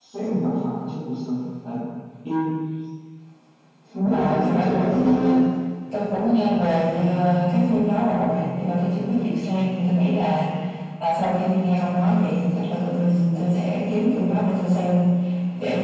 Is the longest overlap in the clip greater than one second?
Yes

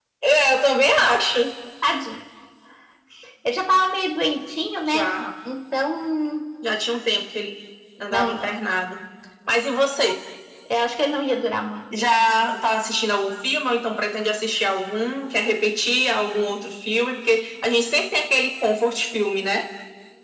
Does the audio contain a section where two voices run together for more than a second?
No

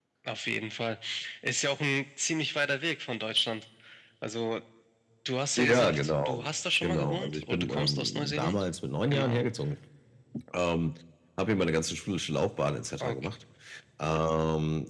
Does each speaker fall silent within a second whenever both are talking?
No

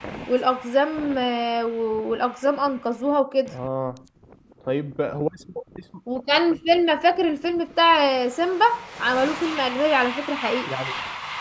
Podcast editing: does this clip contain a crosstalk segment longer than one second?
No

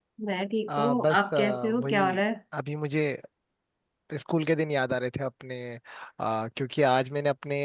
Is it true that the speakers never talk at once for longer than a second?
No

